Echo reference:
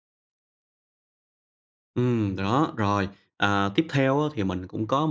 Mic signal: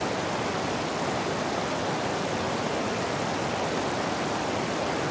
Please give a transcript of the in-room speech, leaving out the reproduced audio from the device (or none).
none